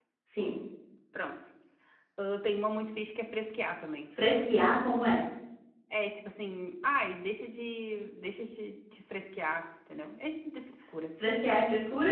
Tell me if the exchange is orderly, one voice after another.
Yes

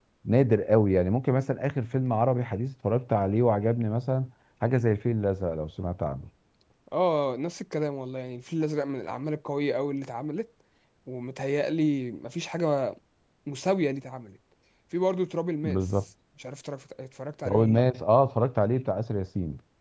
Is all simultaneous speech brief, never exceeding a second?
Yes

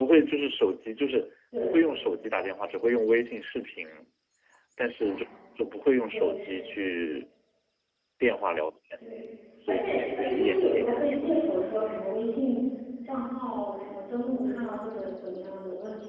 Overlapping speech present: Yes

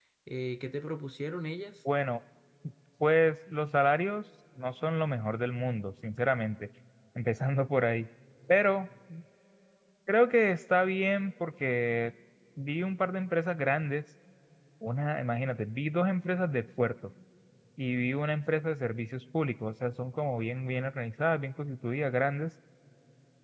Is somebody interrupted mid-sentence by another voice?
No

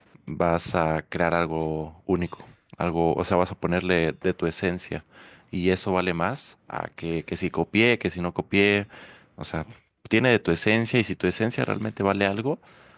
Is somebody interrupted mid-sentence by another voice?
No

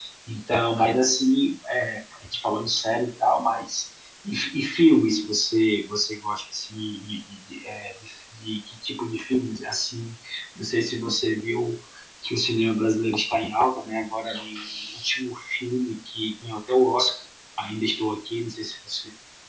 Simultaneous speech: No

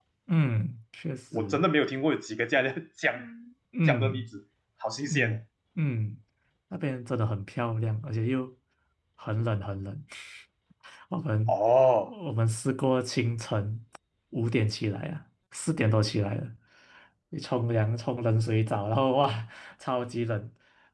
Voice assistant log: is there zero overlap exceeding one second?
Yes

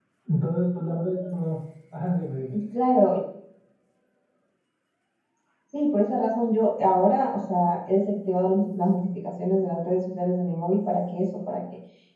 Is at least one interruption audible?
No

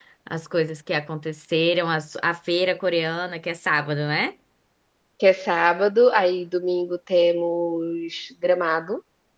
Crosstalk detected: No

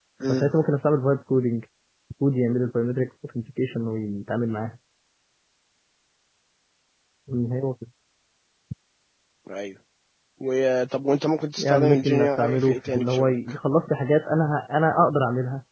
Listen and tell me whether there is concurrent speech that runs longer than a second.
Yes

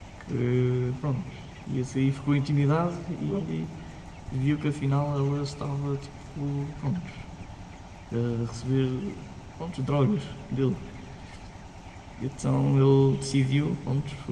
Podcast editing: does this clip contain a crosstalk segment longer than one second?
No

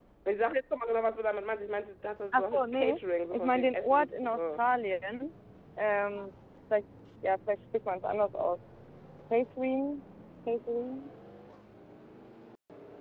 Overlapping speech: Yes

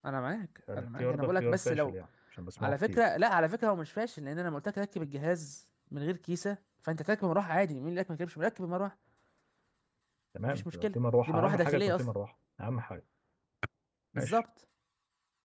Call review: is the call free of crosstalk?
No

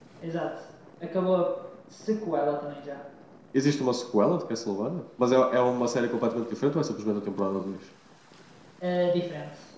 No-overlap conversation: Yes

